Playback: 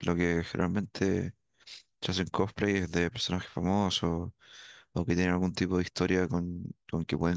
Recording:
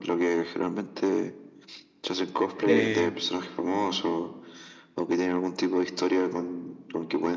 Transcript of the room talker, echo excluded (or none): eh,